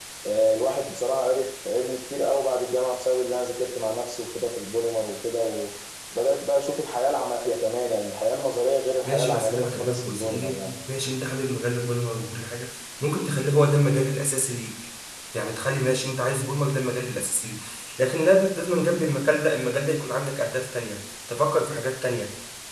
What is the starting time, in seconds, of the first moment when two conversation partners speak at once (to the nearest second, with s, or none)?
9 s